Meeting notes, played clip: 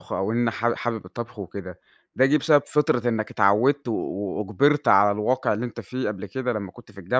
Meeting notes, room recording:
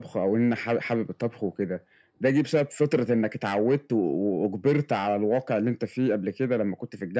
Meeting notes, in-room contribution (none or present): none